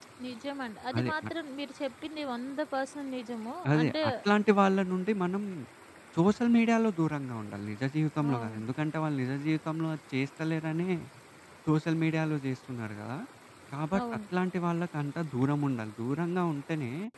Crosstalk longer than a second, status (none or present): none